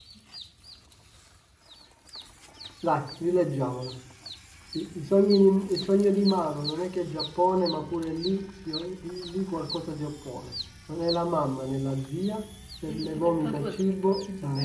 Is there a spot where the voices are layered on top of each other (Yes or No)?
Yes